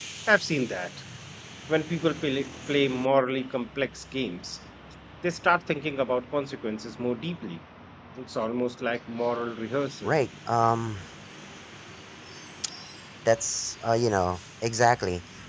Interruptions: none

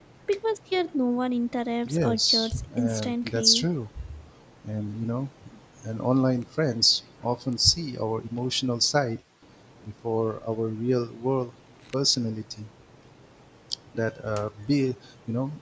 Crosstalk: present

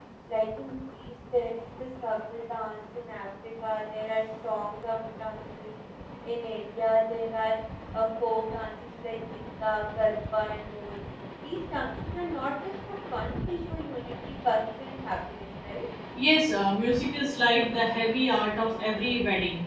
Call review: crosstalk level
none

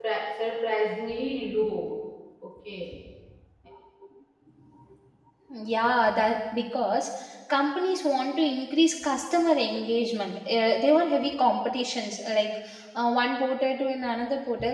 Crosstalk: none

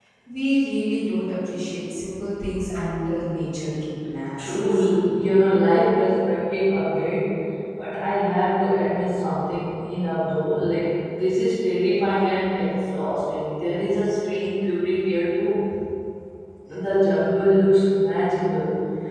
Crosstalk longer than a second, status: none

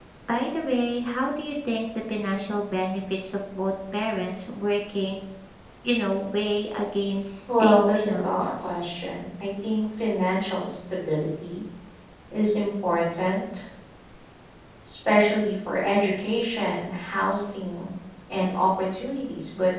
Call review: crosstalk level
present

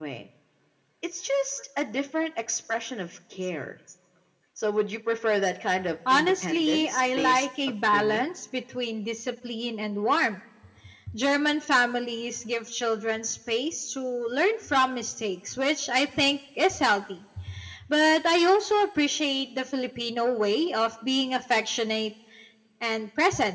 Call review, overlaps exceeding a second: present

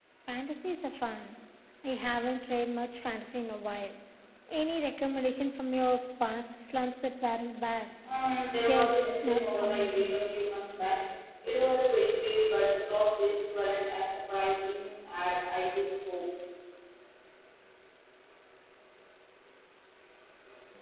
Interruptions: present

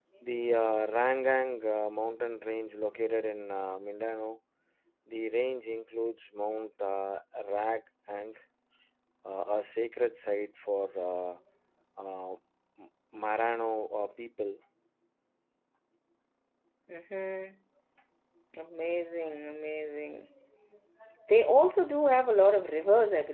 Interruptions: none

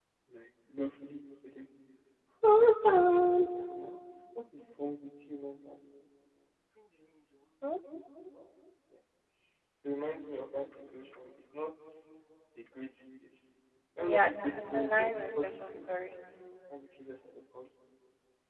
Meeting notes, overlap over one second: present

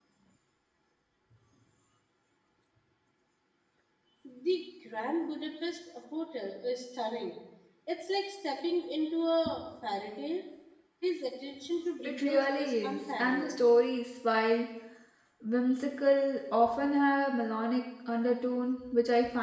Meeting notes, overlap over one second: present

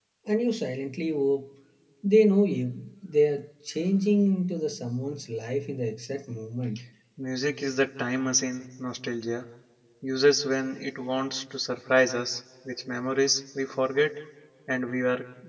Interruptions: none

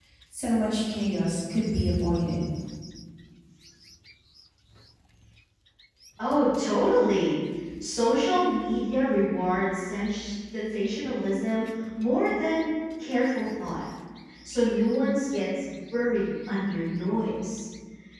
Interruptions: none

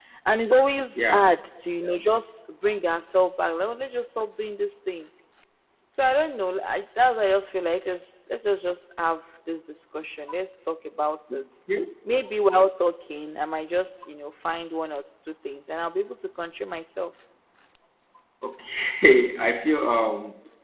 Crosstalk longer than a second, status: none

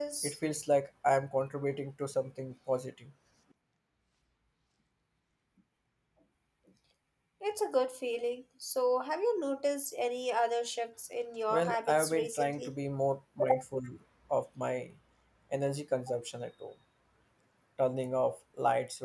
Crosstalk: present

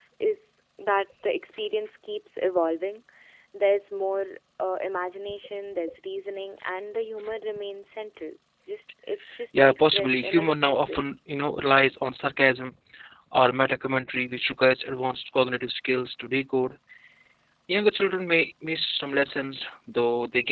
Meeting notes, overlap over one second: present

